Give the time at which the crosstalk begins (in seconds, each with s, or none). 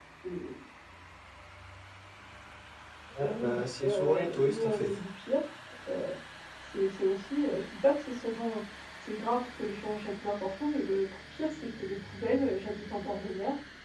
3.2 s